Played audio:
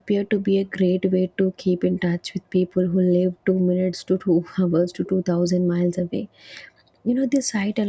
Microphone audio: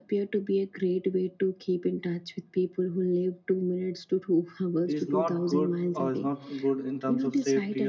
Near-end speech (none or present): present